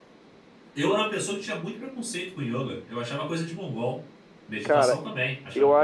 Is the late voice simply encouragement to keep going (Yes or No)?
No